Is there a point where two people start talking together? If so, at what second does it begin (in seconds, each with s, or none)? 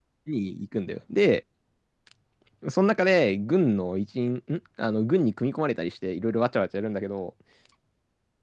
none